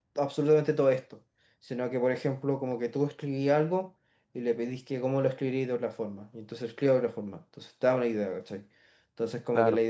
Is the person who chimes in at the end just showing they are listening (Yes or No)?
Yes